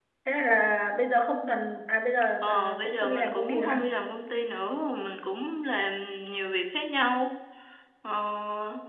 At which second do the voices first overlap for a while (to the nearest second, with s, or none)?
2 s